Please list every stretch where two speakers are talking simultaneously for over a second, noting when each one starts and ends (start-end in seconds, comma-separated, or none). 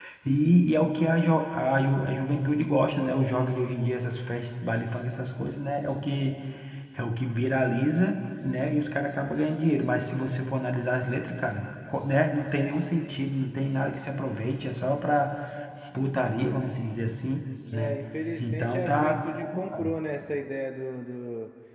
18.4-19.9